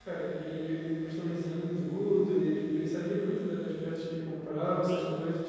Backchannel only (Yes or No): No